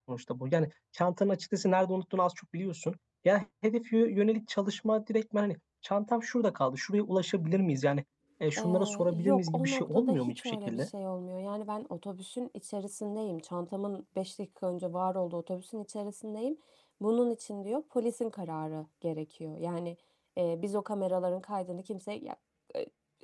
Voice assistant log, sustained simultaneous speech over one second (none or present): present